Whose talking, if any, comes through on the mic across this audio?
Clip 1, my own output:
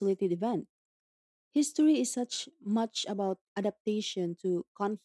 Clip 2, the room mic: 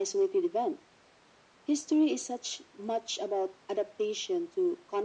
echo only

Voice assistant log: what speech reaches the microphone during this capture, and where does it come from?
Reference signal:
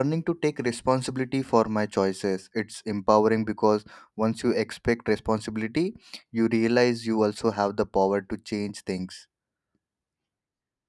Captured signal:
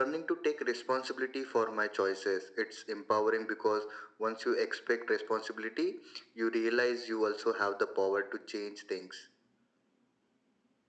echo only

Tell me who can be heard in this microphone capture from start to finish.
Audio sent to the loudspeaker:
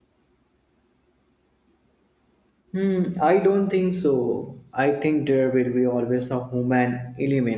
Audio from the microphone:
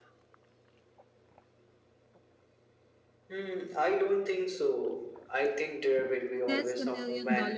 both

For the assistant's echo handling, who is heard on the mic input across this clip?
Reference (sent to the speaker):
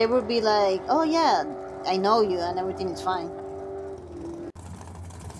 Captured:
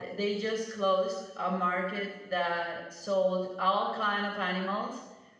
user only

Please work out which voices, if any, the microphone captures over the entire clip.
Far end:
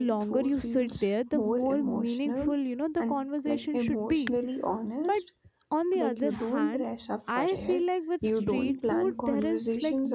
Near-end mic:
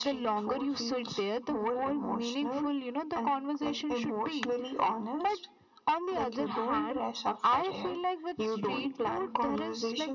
echo only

